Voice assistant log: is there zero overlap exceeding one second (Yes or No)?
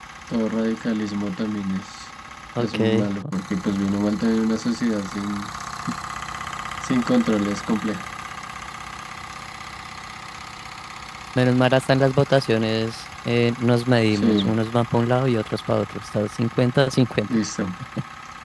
Yes